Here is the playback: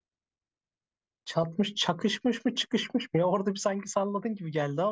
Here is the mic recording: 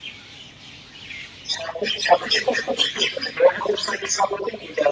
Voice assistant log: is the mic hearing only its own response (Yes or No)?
Yes